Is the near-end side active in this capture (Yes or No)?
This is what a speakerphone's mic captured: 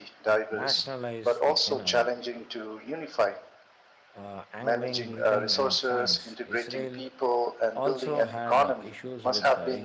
Yes